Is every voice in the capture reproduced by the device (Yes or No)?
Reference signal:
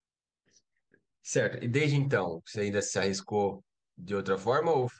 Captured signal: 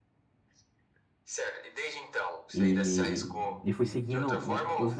No